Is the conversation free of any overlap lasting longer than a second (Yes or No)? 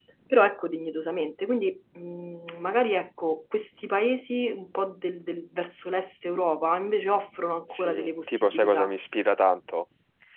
No